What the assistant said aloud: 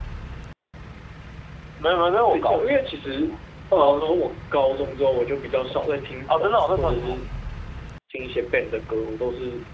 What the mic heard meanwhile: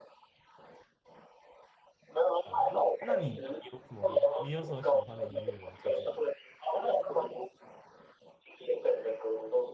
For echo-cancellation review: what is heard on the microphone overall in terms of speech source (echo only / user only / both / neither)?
both